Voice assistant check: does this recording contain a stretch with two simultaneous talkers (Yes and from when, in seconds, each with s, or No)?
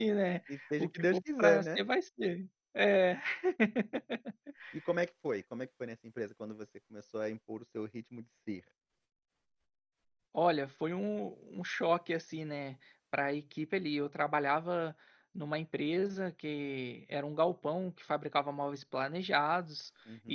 Yes, from 0.5 s